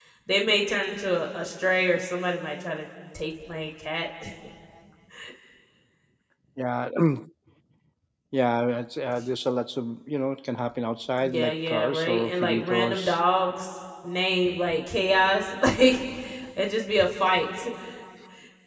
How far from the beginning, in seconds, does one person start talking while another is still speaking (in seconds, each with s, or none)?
11.2 s